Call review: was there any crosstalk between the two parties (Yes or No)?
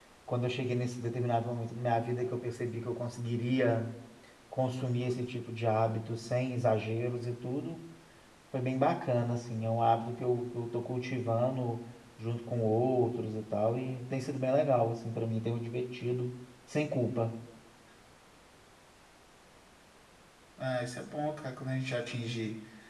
No